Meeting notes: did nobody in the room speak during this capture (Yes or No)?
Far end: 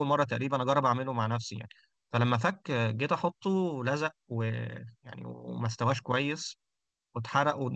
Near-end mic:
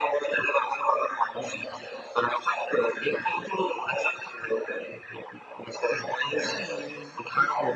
No